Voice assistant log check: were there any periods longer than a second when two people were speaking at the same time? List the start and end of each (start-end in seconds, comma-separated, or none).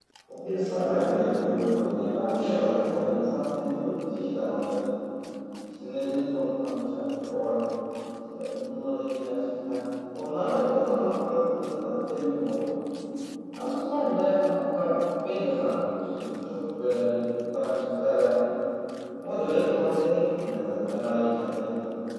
0.8-3.4